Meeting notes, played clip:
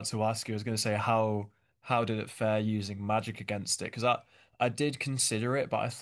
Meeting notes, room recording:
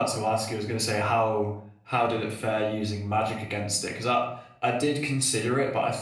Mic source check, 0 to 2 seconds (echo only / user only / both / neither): echo only